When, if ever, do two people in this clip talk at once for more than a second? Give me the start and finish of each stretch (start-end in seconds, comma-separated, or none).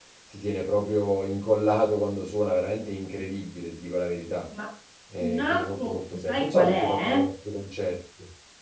5.2-7.3